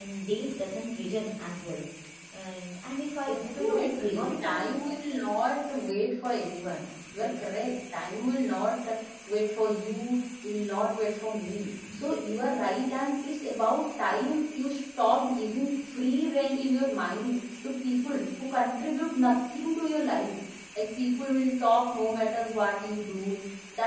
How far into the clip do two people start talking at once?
3 s

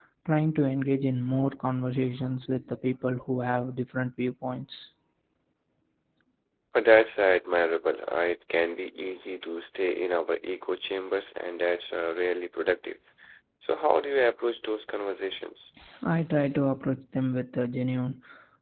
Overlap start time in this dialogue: none

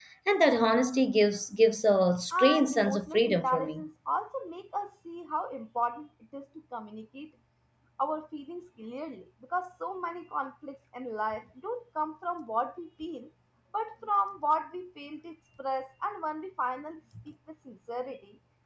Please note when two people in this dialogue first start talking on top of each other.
2 s

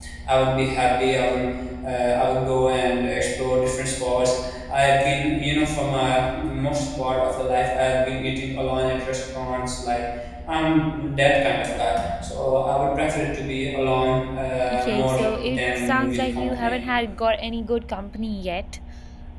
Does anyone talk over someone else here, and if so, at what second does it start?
15 s

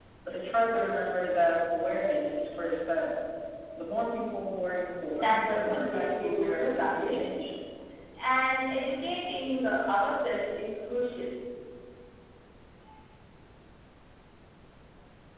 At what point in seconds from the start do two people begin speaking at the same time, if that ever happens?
5 s

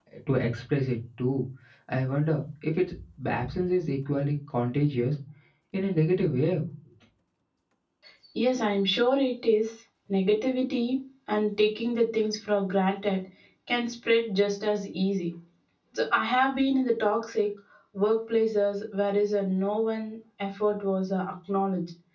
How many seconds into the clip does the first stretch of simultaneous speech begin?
none

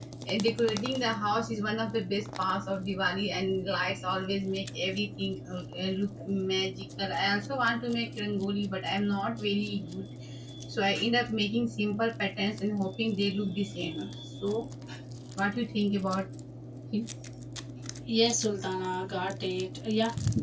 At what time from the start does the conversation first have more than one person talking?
none

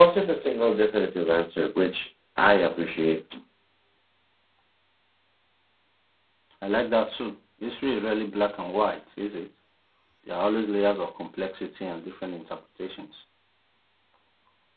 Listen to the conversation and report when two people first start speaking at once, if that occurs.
none

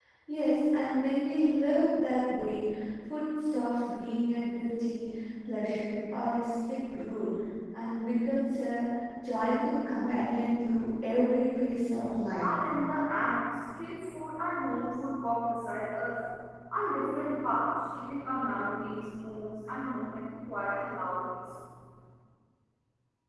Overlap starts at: none

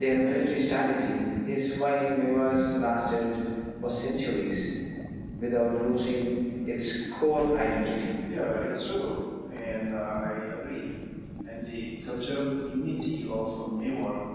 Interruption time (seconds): none

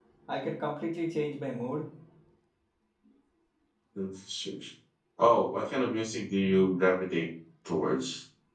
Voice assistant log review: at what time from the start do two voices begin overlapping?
none

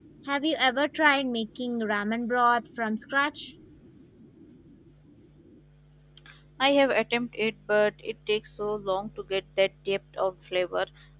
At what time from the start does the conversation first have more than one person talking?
none

